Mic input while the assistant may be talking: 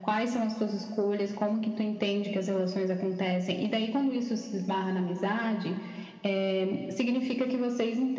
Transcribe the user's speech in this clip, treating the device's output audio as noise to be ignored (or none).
none